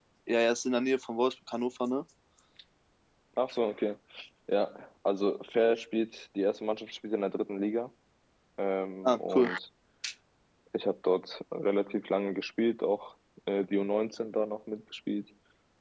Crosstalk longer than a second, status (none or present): none